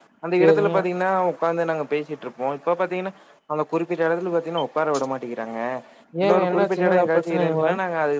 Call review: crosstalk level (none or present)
present